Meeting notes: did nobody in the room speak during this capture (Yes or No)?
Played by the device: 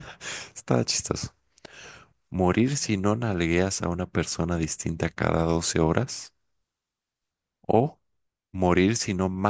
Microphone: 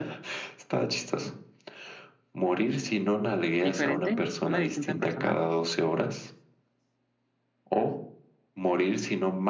No